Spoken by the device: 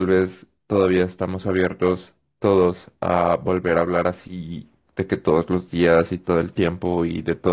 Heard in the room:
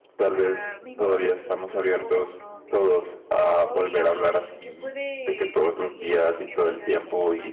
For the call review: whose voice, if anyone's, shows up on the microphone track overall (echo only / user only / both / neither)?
both